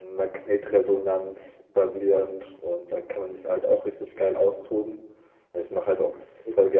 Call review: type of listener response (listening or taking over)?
listening